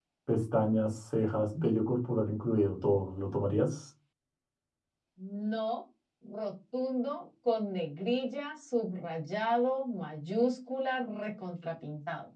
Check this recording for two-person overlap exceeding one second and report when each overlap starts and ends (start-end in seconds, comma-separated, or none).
none